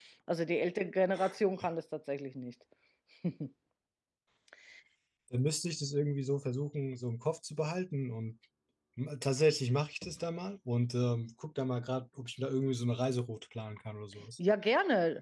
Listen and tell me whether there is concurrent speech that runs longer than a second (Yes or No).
No